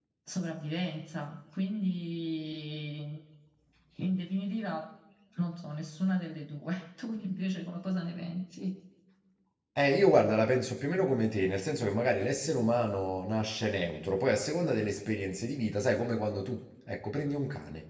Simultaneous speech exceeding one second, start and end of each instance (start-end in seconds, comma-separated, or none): none